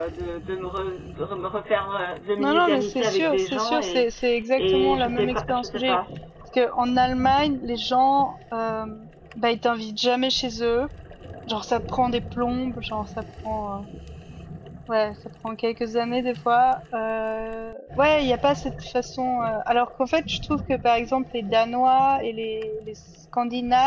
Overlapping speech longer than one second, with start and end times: 2.4-4.0, 4.5-6.0

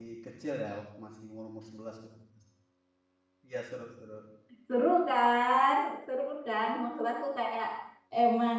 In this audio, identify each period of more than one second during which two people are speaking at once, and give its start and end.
none

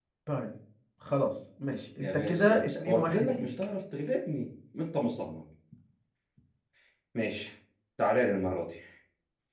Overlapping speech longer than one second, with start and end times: 2.0-3.4

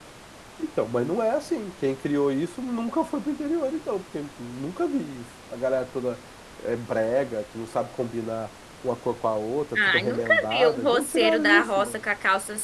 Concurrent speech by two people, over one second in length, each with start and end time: 9.8-12.0

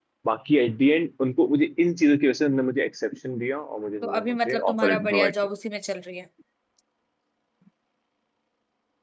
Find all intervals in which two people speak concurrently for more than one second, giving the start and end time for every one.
4.0-5.3

